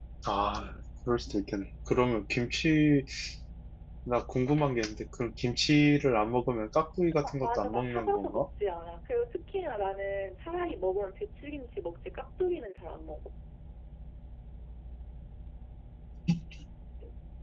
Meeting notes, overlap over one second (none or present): present